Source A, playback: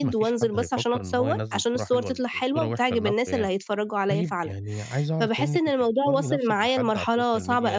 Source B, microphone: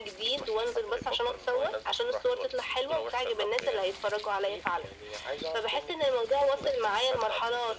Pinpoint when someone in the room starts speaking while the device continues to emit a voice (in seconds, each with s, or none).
none